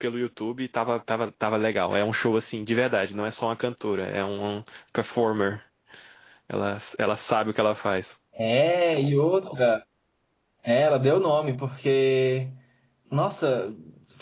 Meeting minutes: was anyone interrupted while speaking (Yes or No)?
No